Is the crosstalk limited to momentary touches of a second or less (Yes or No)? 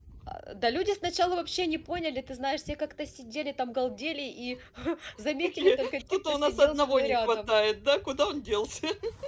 No